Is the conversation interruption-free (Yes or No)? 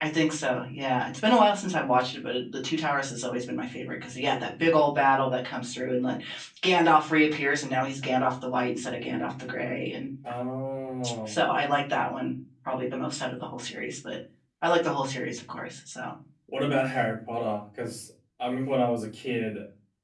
Yes